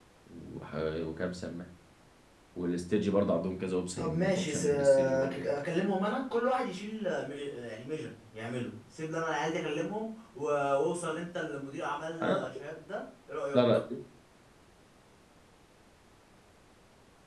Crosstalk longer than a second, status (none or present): present